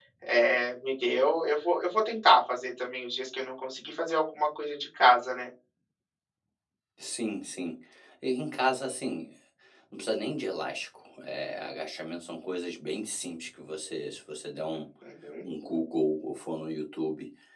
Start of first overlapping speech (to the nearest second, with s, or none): none